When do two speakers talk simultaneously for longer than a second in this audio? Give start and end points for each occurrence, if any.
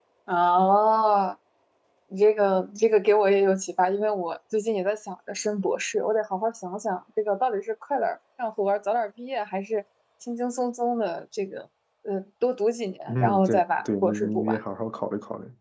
13.1-14.6

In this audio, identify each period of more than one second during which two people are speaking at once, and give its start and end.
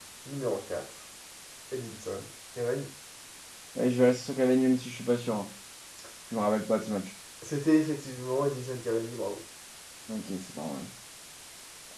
none

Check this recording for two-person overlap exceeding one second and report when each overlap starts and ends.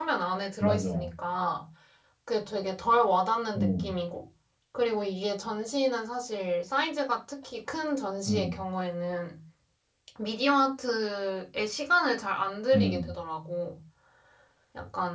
none

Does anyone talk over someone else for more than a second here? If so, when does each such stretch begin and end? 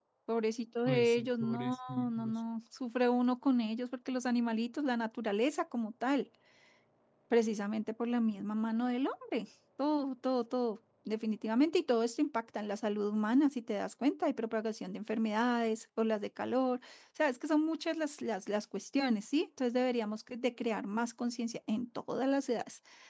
0.9-2.3

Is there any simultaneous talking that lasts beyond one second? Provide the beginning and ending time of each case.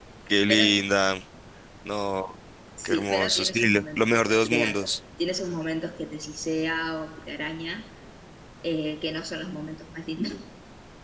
2.8-4.9

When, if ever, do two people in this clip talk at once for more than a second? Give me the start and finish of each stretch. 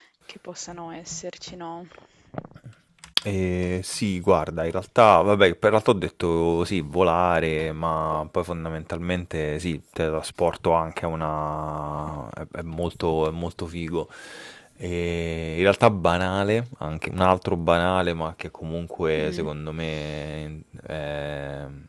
none

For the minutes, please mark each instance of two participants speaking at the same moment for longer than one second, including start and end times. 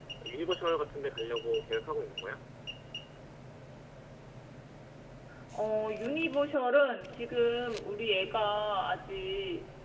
none

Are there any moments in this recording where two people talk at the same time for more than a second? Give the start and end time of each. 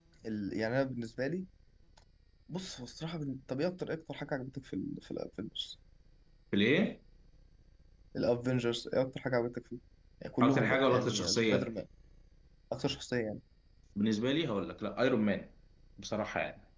10.4-11.7

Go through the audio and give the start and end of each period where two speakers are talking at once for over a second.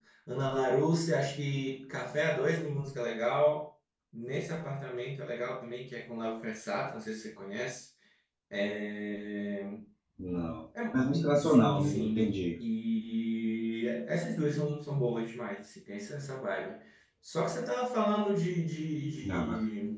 10.9-12.3

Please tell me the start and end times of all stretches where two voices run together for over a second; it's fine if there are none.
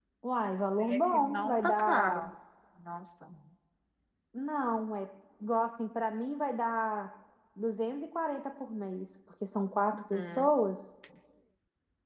0.8-2.1

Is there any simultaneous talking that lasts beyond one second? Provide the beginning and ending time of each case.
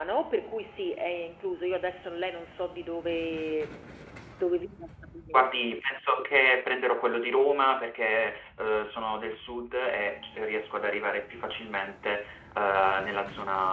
none

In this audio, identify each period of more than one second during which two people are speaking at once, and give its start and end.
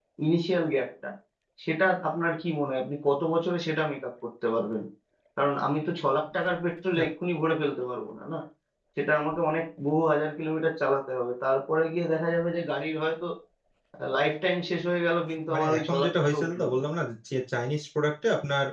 15.5-16.8

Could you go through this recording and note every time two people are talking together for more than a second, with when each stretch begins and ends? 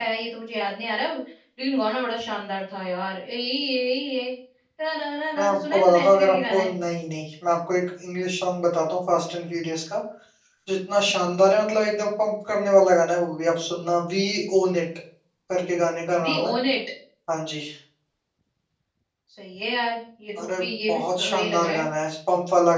5.5-6.7, 20.4-21.9

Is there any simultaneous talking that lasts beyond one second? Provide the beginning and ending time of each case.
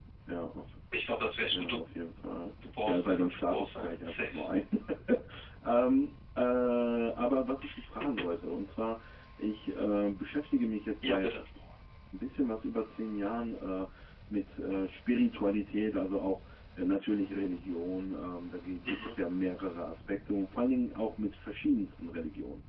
2.9-4.3

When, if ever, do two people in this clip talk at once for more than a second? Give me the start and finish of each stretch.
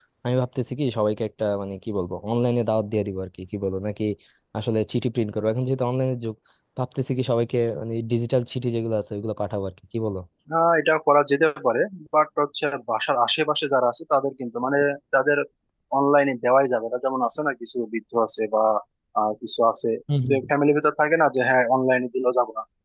none

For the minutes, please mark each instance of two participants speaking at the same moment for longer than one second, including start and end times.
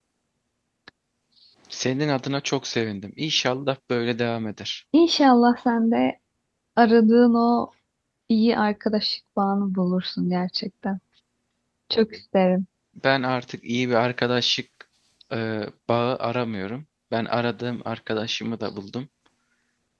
none

